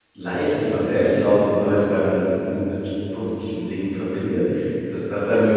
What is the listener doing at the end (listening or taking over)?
listening